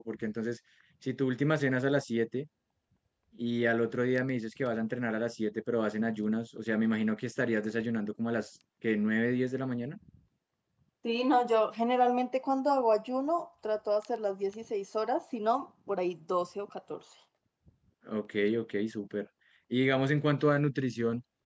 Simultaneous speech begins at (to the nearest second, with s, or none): none